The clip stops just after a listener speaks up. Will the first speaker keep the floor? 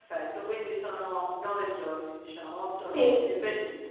Yes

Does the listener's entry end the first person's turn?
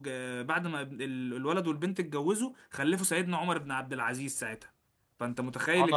Yes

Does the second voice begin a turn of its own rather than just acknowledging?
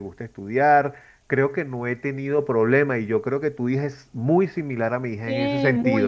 Yes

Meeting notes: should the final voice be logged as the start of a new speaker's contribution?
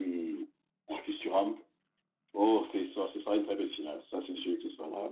Yes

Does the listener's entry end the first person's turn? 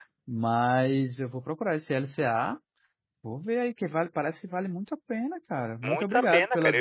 Yes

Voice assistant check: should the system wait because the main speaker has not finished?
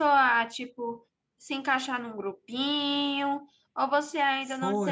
No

